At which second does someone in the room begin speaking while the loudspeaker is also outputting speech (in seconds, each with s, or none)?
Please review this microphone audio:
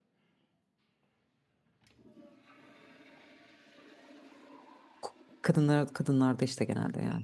5.0 s